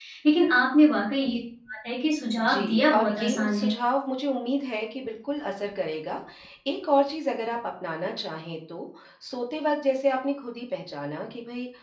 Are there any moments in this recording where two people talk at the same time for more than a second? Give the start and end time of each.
2.4-3.7

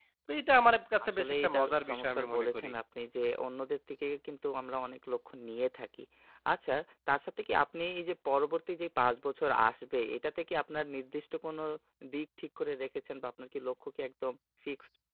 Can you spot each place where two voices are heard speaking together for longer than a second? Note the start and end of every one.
1.1-2.7

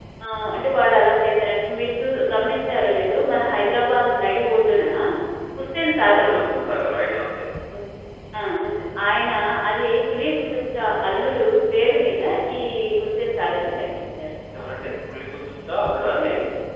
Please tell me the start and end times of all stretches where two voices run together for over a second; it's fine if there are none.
none

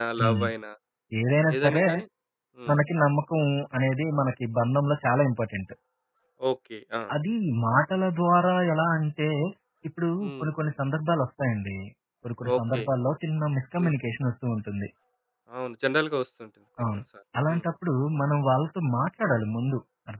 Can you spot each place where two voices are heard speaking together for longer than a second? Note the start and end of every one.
none

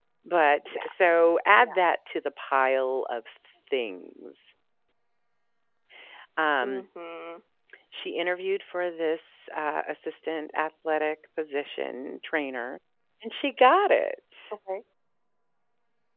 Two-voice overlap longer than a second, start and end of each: none

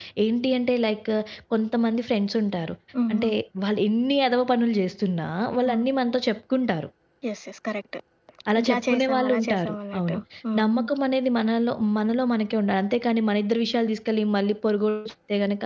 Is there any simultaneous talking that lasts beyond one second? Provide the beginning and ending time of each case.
8.6-10.2

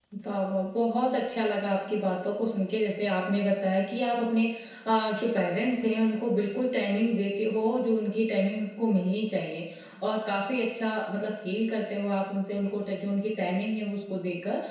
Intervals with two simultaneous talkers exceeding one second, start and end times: none

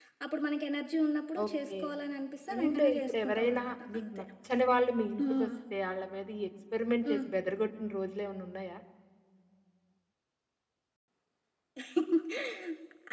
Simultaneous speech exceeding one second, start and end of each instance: 2.5-4.0

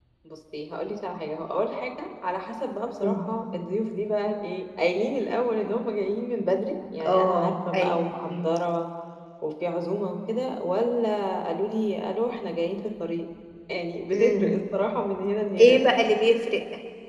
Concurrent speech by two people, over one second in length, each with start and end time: 7.1-8.4

